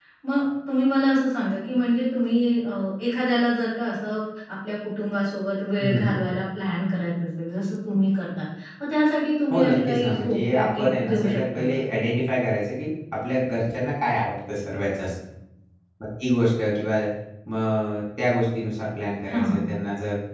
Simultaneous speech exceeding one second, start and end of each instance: 9.5-11.8

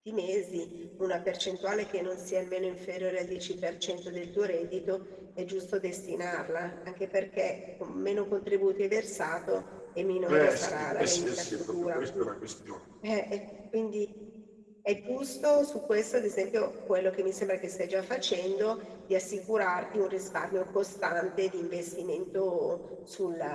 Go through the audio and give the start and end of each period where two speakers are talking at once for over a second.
10.3-12.3

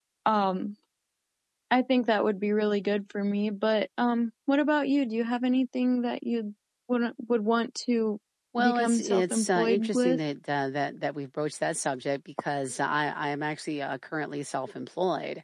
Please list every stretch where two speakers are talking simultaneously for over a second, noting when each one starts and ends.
8.6-10.2

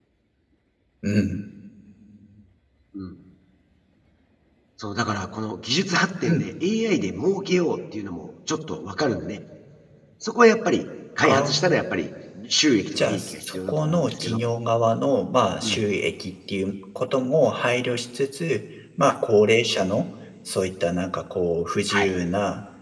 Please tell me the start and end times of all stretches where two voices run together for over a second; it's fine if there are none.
13.0-14.4

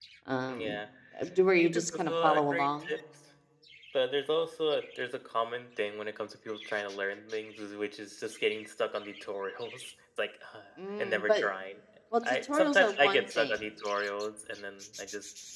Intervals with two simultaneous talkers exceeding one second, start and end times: 1.6-2.9, 12.3-13.6

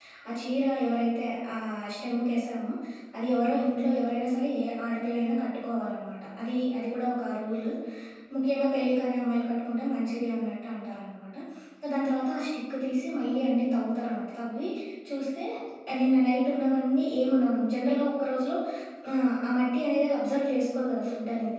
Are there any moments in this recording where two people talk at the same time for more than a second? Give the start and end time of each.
none

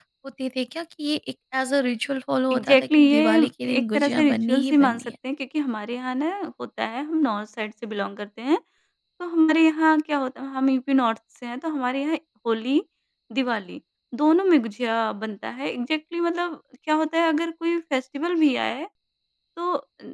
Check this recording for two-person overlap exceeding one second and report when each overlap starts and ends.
2.5-5.1

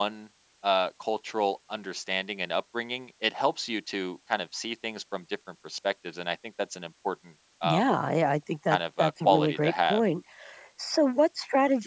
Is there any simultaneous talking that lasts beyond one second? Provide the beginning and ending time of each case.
8.7-10.0

